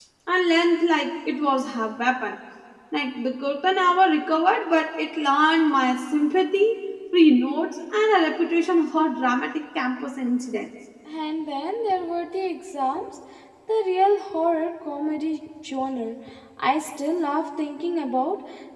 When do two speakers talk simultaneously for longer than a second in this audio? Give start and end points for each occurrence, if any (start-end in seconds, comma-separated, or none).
none